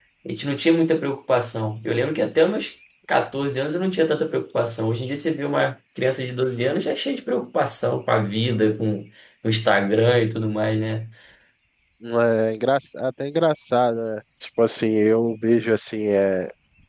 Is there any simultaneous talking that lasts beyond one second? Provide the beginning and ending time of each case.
none

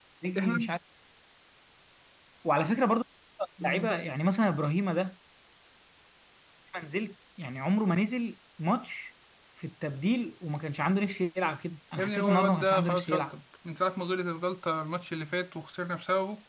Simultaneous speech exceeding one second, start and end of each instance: 12.0-13.3

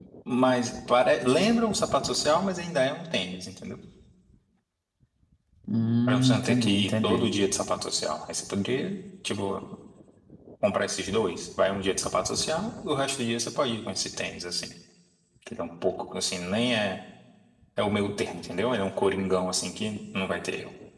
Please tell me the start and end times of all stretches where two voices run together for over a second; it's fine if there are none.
6.1-7.3

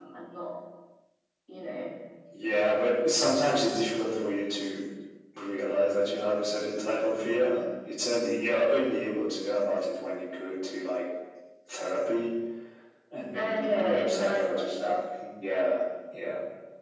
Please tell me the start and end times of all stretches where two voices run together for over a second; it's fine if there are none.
13.3-14.7

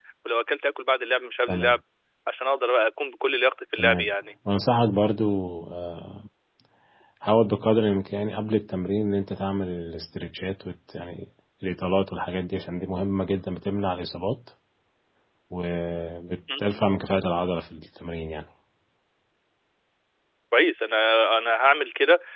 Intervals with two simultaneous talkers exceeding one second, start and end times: none

